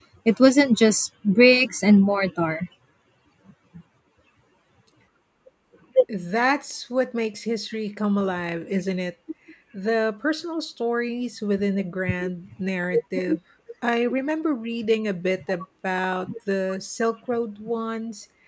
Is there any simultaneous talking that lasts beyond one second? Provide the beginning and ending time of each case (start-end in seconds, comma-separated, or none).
none